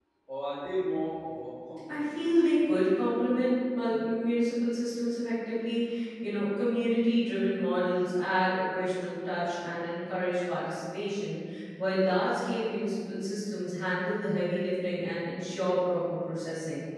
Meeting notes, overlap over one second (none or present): none